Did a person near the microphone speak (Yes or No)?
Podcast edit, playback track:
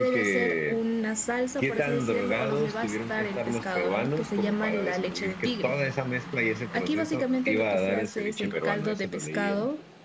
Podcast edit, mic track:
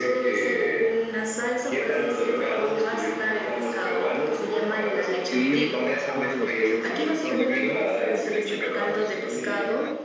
Yes